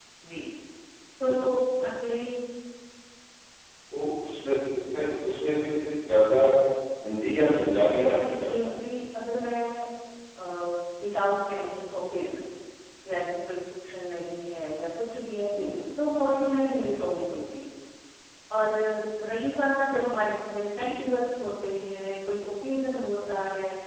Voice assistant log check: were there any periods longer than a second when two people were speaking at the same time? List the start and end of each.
7.3-9.0

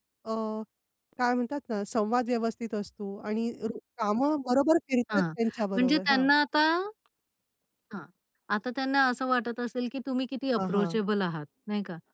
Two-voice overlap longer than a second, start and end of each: none

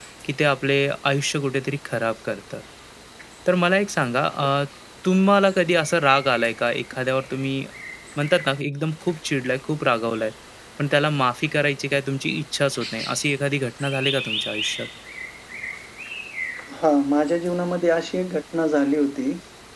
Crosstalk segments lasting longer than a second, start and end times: none

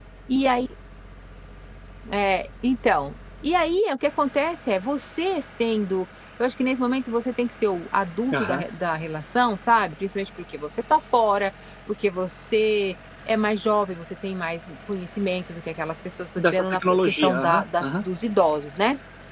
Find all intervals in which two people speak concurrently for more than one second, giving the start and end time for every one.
16.4-18.0

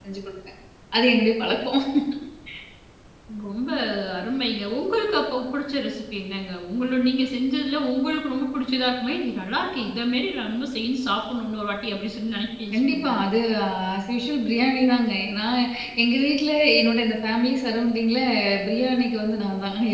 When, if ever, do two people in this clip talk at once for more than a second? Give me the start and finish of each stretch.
none

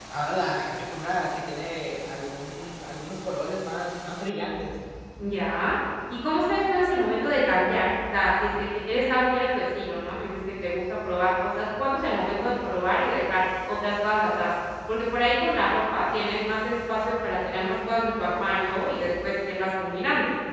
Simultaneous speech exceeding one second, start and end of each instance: none

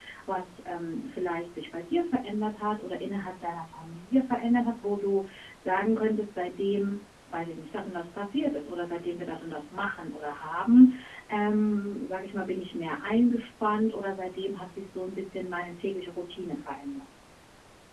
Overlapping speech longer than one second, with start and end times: none

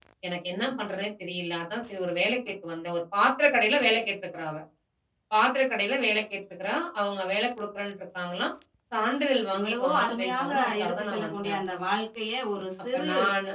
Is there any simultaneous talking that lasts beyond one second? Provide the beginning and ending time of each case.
9.6-11.6

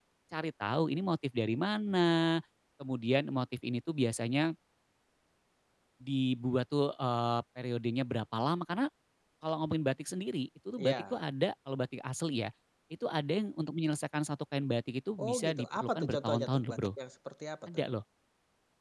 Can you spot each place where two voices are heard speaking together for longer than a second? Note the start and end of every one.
15.2-16.9

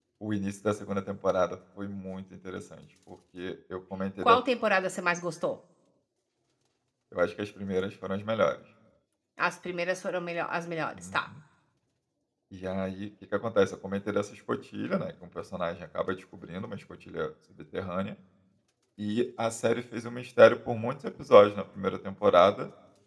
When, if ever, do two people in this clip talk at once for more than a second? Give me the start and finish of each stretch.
none

